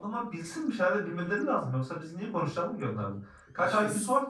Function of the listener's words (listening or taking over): listening